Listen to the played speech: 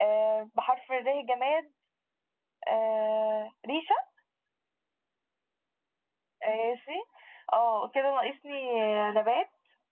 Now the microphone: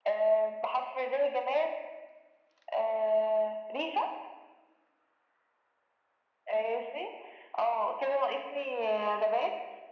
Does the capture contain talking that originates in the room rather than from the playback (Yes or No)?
No